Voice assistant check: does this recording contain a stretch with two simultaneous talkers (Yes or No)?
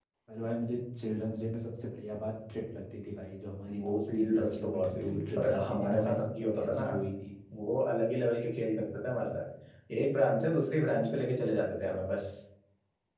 Yes